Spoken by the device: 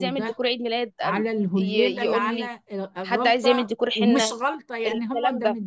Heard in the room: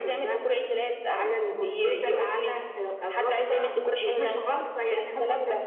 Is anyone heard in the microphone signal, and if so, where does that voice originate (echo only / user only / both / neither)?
echo only